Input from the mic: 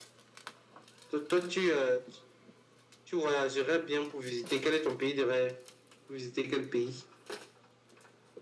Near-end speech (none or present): none